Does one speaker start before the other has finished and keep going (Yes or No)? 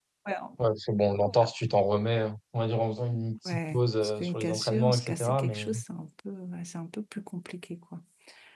Yes